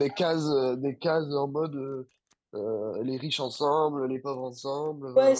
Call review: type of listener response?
taking over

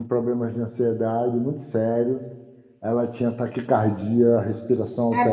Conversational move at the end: listening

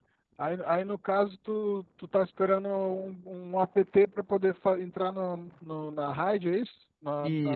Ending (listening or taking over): taking over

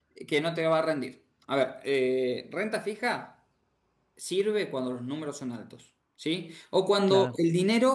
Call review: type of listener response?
listening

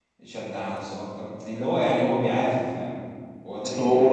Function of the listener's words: listening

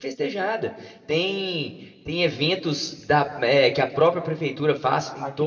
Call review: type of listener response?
listening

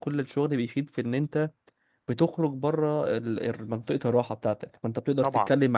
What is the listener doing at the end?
listening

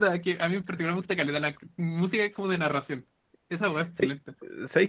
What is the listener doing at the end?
taking over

